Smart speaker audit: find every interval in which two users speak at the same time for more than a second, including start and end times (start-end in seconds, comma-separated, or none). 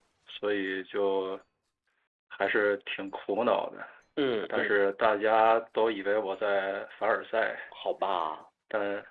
none